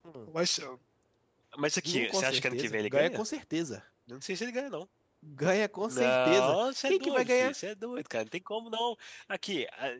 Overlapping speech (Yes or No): Yes